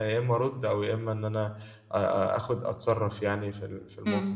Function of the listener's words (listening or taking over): taking over